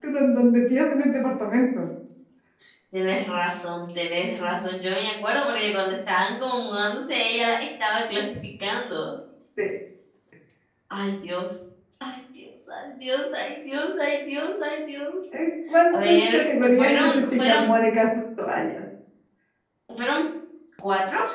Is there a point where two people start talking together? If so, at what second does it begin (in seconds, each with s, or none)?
15.9 s